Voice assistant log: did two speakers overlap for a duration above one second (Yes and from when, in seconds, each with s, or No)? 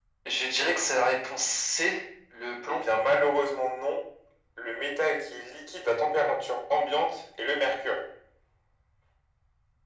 No